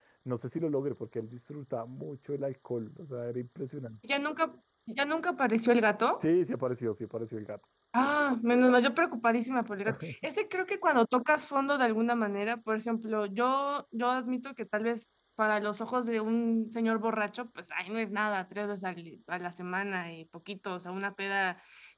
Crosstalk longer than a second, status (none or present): none